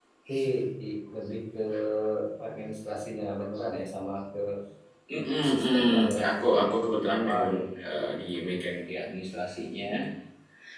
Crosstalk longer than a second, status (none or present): present